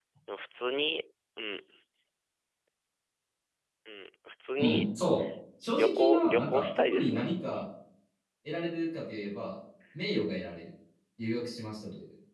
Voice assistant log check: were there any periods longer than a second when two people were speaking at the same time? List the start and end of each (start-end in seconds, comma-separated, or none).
5.7-7.2